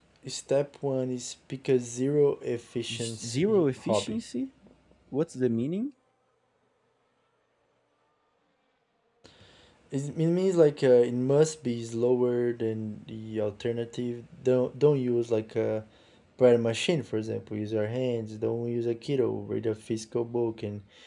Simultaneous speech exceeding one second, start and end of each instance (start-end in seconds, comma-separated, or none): 2.9-4.2